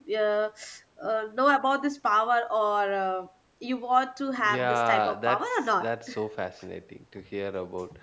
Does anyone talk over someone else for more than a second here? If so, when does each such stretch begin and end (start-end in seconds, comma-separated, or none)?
4.4-5.9